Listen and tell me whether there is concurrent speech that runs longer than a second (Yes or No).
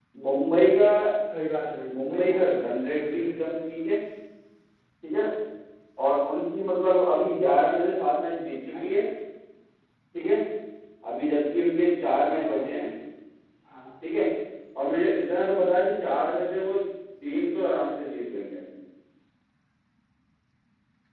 Yes